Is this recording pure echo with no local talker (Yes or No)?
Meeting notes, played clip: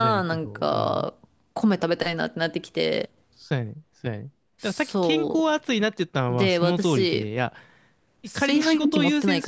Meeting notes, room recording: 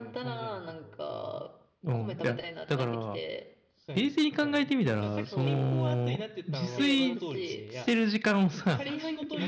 No